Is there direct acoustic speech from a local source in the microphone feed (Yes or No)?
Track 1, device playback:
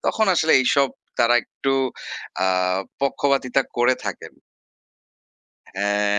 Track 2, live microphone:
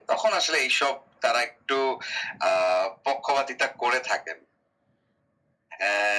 No